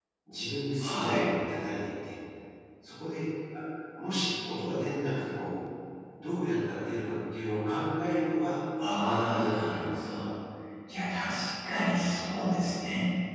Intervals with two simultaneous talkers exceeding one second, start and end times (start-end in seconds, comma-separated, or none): 8.9-10.2